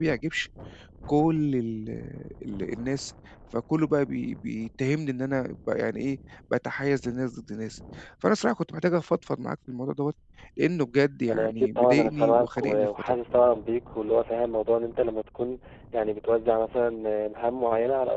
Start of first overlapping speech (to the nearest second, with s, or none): 11 s